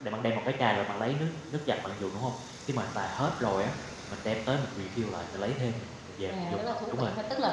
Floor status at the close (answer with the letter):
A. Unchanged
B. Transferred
B